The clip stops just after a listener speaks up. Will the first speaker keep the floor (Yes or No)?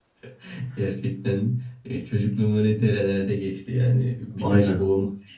Yes